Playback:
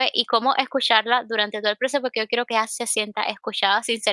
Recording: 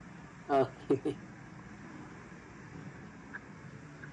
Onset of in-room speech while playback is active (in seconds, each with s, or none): 0.5 s